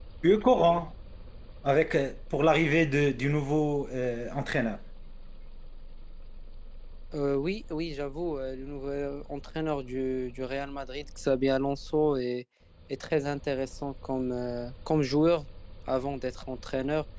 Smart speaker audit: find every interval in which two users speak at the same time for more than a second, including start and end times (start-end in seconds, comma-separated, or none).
none